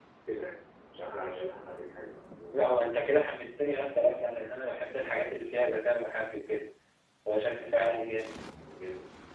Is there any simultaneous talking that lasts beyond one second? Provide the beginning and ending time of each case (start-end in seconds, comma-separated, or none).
none